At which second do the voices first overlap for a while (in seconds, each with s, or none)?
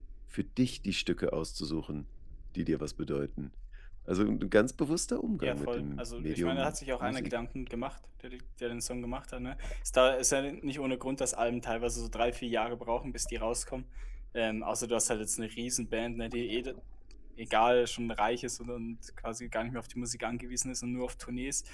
5.4 s